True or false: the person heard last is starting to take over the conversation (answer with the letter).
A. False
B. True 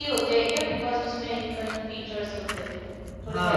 B